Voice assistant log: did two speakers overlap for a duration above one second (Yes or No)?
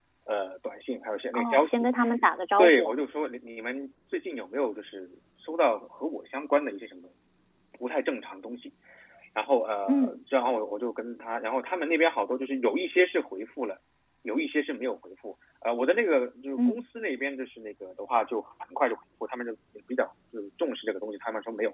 No